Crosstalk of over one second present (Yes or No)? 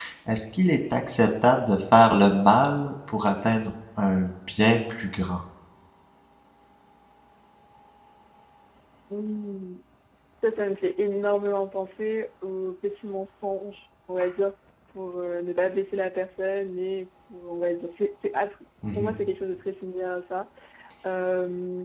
No